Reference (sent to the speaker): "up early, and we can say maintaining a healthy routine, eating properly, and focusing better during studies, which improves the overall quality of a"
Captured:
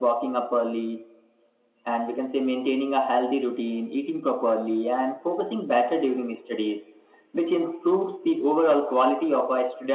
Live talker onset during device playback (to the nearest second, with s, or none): none